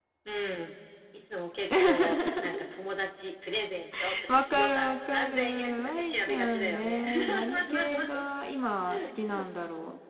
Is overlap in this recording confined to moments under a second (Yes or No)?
No